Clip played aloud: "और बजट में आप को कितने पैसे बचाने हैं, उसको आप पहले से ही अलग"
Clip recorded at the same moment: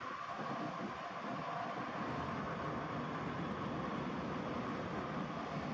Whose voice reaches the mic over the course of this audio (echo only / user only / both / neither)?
neither